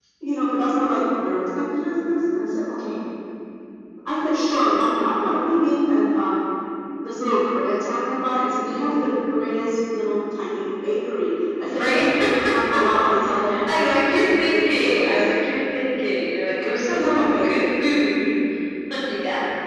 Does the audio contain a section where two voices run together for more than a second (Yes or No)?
Yes